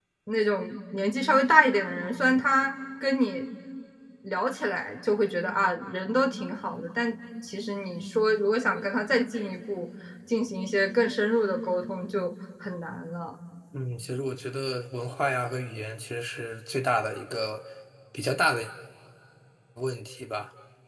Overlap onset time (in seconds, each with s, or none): none